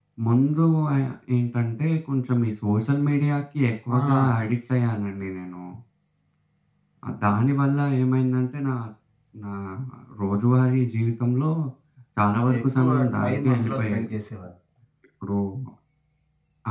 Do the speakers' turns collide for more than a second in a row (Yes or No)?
Yes